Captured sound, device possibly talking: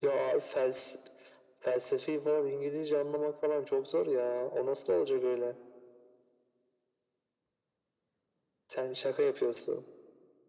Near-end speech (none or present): none